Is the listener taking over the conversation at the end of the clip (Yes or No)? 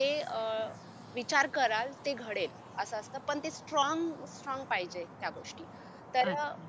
No